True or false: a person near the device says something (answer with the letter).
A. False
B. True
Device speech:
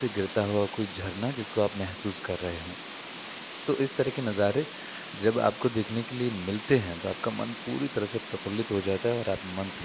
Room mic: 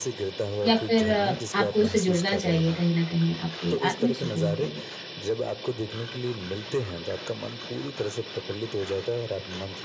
B